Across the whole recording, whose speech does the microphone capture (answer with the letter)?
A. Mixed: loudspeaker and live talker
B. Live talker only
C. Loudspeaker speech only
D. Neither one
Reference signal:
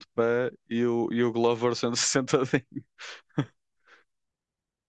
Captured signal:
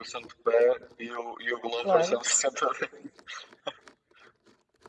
A